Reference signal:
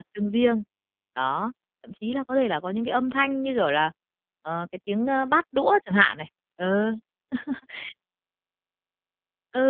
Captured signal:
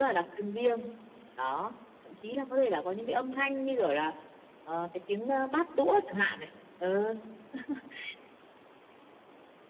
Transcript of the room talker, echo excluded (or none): none